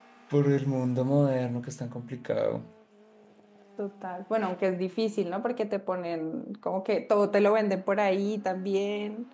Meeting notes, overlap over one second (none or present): none